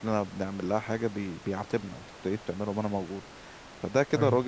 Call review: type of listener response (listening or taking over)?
listening